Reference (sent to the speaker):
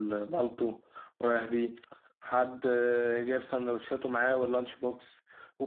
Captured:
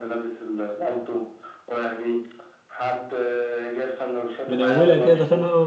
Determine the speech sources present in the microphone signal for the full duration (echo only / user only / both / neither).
both